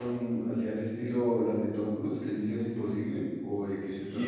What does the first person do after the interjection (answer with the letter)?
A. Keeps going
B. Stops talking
B